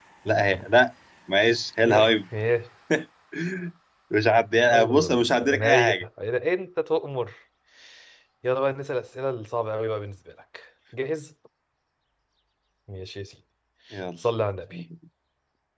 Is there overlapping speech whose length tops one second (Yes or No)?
Yes